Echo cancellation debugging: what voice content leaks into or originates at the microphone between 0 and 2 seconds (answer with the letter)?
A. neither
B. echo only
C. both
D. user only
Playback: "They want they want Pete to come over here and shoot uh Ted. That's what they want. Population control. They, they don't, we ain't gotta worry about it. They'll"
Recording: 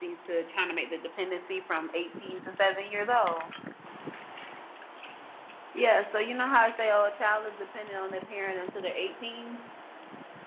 D